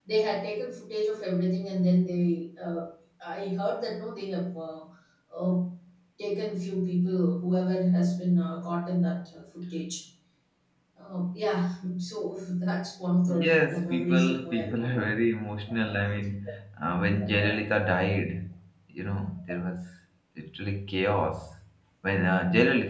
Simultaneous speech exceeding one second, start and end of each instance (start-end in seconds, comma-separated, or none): 13.4-15.0